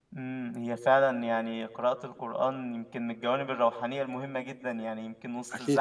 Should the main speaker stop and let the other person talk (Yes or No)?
No